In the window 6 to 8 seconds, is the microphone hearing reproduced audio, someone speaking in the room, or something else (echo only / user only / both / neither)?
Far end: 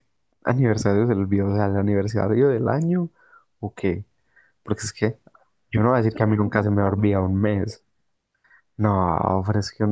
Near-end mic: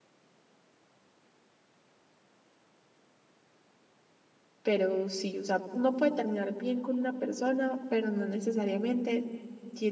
user only